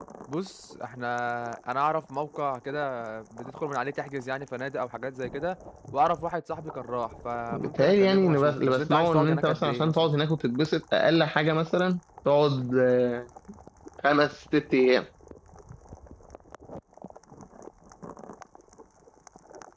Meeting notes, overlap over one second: present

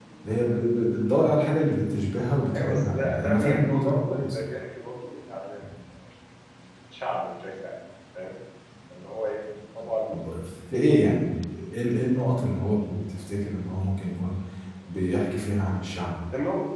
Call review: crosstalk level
present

